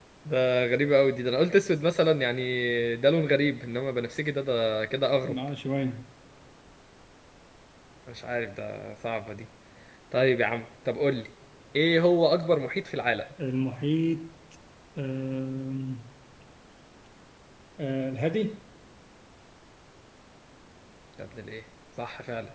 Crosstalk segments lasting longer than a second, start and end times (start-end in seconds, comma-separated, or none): none